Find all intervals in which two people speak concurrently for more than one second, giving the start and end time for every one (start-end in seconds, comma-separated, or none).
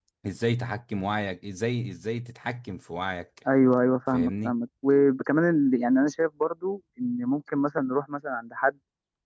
none